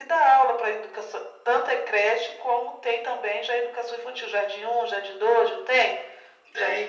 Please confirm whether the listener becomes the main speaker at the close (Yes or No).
Yes